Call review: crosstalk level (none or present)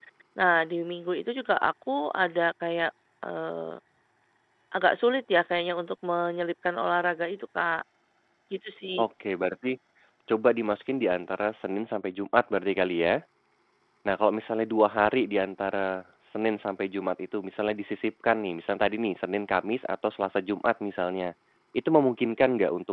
none